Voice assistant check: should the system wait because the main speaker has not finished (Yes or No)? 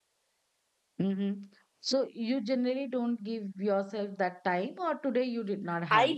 No